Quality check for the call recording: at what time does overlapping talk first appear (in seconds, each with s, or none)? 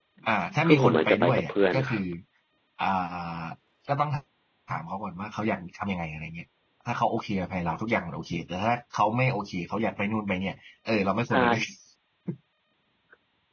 0.6 s